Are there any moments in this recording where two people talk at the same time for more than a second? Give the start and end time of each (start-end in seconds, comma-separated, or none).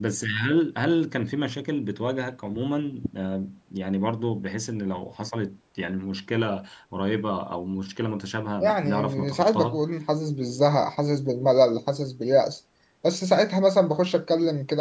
8.6-9.8